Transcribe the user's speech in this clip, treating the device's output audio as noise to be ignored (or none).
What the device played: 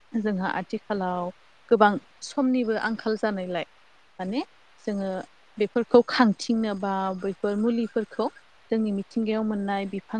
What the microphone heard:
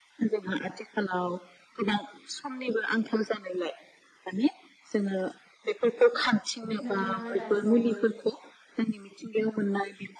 नोंथाङा दानि बावै